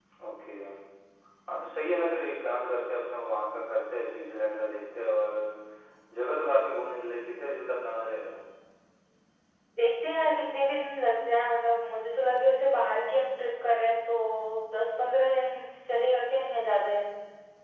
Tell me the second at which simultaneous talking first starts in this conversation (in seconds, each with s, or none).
none